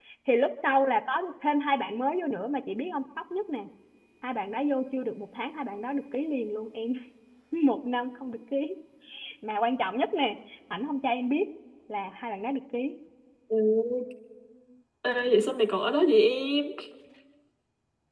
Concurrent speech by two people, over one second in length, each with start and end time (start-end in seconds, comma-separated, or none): none